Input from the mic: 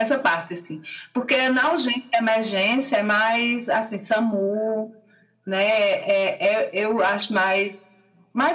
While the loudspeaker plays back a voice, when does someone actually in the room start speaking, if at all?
none

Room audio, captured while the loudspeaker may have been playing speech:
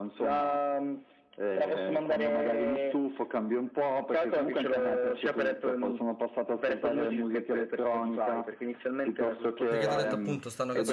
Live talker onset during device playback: 9.7 s

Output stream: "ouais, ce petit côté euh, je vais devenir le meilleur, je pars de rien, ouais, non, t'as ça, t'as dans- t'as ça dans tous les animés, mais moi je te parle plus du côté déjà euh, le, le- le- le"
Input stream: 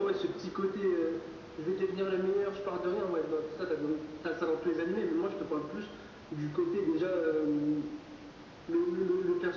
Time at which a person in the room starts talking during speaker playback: none

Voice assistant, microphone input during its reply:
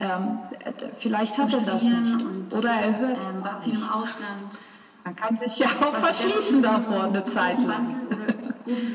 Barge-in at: none

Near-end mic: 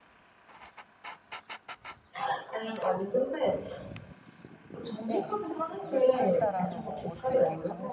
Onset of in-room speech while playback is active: 5.1 s

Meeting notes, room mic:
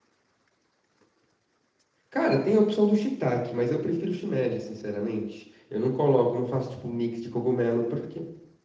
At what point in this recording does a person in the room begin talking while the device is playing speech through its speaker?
2.1 s

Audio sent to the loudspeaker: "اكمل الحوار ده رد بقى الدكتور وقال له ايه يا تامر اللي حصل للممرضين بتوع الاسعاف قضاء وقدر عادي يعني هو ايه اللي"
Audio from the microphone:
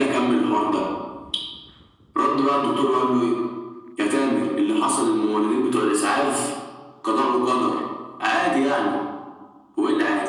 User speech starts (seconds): none

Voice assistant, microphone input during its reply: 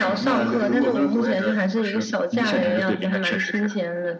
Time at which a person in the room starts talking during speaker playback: none

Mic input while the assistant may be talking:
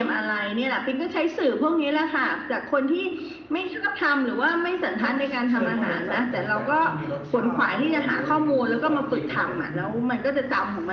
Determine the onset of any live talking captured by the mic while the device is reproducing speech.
5.0 s

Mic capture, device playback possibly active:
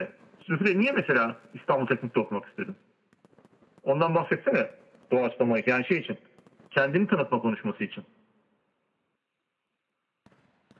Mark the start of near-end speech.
none

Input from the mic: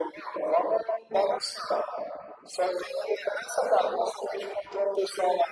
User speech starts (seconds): none

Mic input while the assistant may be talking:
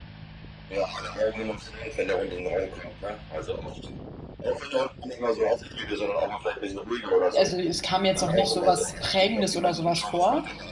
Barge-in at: 7.3 s

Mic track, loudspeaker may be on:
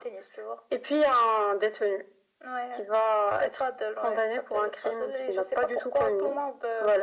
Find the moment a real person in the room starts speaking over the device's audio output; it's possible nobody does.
none

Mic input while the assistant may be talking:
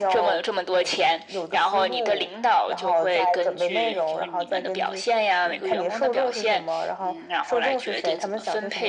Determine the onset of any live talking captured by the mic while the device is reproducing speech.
none

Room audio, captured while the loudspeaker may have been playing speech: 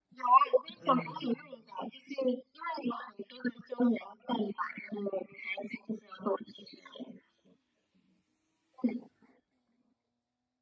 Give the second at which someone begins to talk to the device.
0.8 s

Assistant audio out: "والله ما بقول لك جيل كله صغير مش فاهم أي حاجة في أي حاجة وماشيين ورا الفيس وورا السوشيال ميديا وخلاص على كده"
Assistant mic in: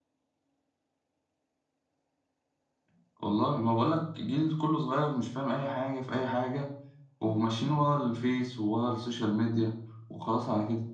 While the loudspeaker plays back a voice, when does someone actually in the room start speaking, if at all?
none

